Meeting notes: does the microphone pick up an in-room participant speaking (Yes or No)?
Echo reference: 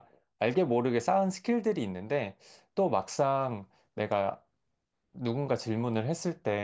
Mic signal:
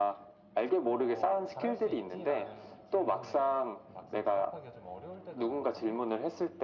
Yes